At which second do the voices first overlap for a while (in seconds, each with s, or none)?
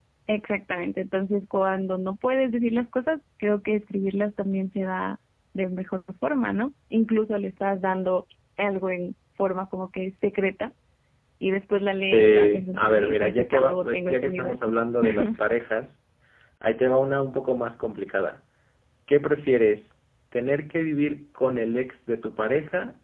12.1 s